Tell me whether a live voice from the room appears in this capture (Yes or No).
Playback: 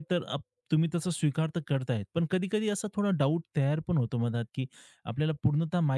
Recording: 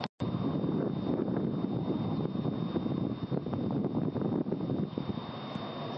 No